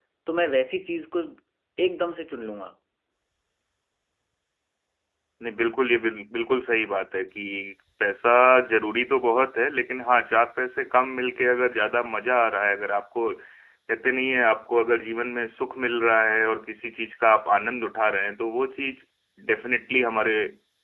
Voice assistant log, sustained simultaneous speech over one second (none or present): none